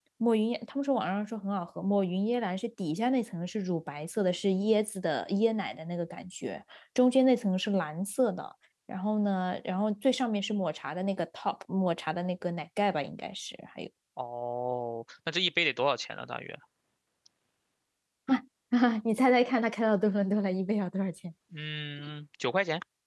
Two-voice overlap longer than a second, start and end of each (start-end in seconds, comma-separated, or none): none